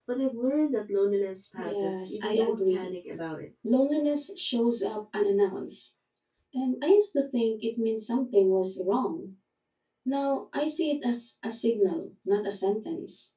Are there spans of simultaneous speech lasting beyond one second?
Yes, from 1.6 s

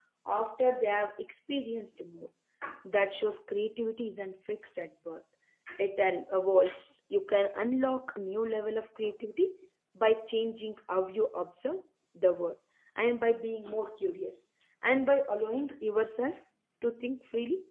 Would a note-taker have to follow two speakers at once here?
No

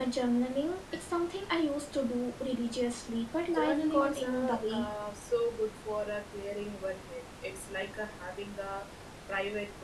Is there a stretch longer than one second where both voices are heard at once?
Yes, from 3.4 s

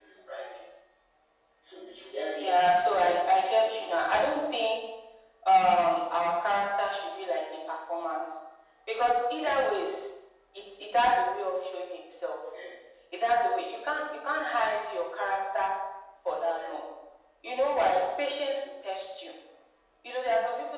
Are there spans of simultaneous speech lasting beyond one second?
Yes, from 2.4 s

